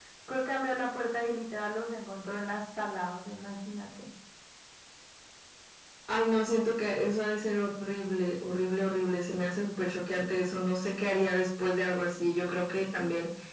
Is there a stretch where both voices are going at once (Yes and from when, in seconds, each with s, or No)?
No